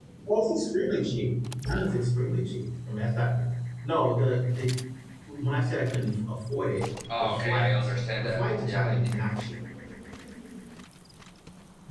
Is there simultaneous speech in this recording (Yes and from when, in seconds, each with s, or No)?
Yes, from 7.1 s